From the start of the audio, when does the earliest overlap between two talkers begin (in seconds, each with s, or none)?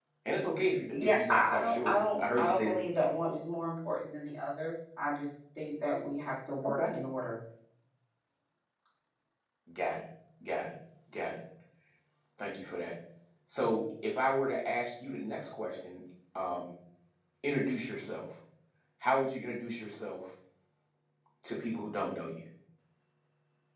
0.9 s